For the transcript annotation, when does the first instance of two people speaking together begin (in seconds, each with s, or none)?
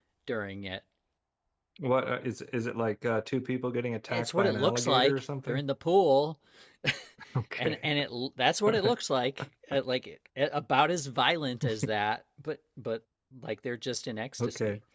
4.1 s